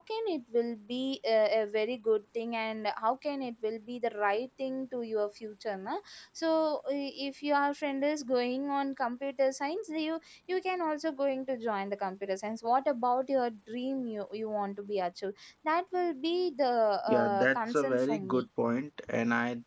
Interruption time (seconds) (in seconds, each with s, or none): 17.1 s